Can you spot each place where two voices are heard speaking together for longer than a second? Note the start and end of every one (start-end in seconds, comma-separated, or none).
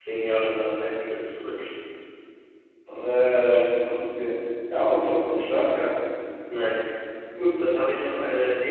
none